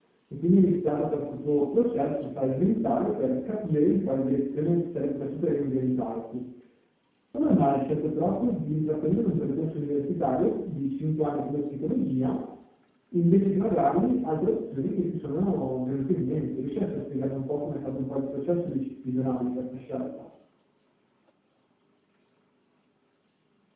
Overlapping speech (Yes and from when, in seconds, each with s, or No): No